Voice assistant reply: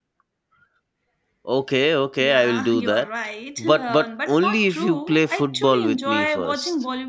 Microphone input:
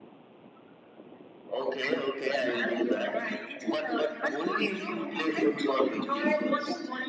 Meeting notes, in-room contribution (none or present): none